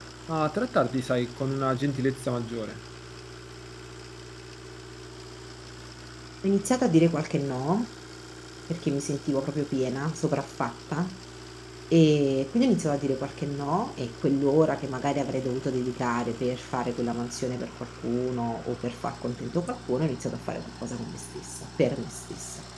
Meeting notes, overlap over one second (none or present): none